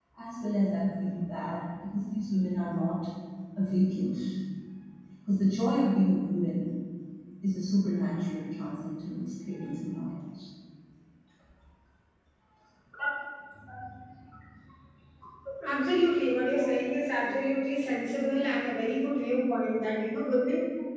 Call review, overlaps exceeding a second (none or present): none